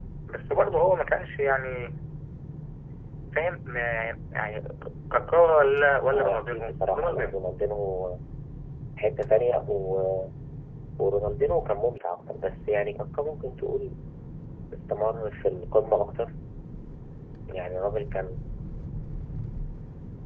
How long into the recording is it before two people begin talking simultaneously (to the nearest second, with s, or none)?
6 s